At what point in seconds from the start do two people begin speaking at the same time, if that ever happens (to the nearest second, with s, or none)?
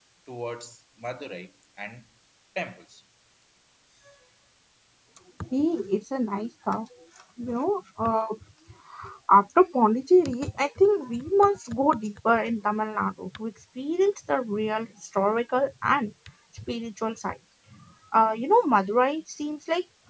none